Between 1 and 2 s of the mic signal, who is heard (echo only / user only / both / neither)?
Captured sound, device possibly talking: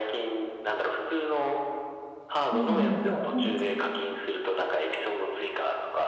echo only